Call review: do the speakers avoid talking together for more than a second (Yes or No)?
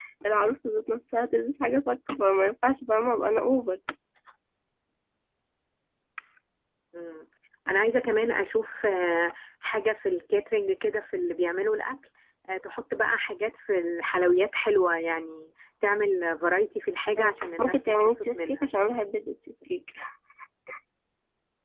No